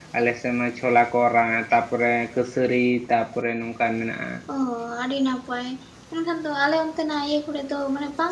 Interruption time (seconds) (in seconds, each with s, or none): none